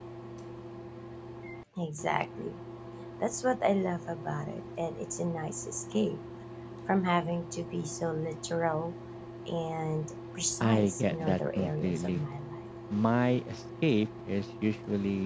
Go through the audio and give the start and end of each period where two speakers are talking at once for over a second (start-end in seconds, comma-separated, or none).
10.6-12.2